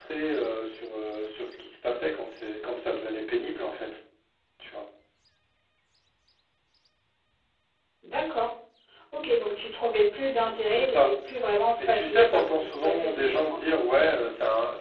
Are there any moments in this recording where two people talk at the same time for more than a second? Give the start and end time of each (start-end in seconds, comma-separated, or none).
11.8-13.8